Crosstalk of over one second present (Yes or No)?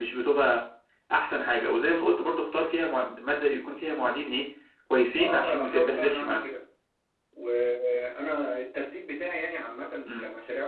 Yes